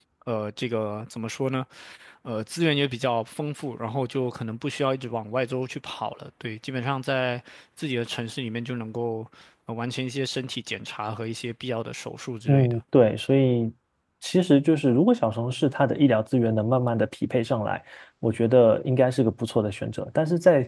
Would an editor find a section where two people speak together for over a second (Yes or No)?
No